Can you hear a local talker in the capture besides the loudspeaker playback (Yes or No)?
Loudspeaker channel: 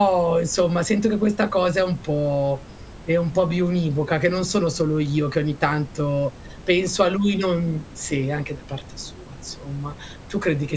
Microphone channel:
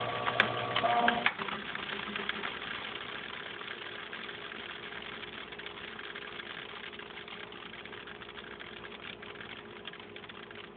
No